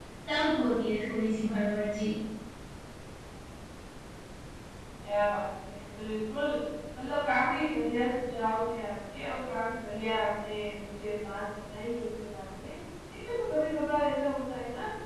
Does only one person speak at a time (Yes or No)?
Yes